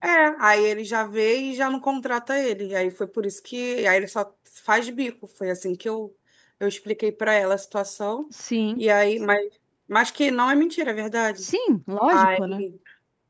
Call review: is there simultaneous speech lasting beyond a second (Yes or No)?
No